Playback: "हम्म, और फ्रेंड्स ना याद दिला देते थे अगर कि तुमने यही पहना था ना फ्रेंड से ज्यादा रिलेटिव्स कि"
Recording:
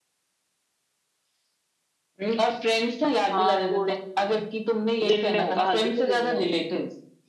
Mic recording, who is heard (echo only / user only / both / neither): both